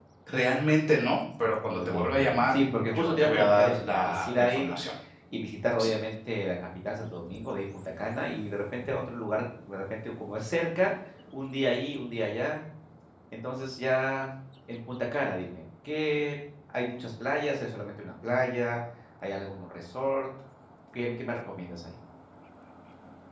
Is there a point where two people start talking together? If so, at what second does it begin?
1.4 s

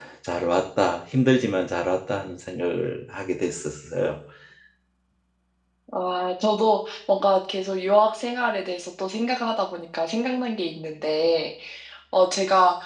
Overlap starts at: none

